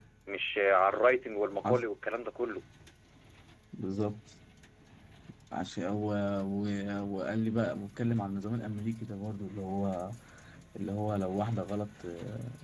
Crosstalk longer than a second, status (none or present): none